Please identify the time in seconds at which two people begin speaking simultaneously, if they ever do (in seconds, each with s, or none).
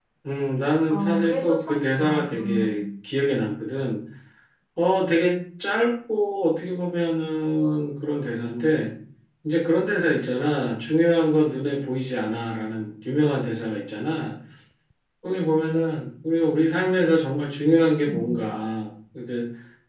0.9 s